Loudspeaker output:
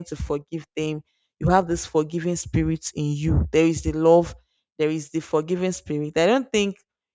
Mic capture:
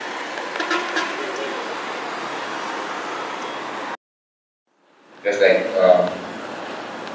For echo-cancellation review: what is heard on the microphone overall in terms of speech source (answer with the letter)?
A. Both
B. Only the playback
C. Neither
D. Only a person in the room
D